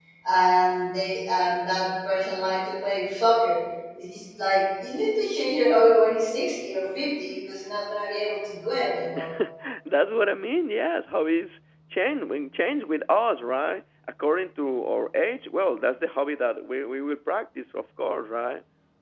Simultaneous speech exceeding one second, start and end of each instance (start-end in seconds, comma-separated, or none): none